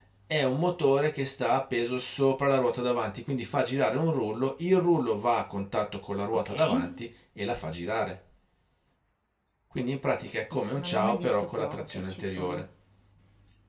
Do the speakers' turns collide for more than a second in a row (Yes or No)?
Yes